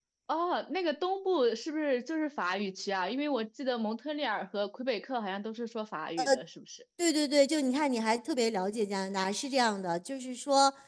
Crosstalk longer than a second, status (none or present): none